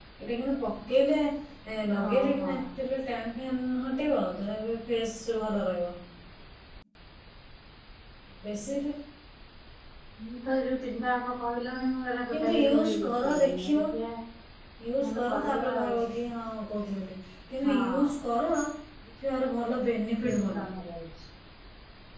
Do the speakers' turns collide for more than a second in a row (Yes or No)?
Yes